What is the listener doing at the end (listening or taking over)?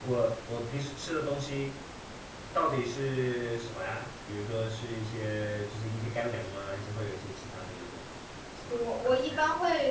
taking over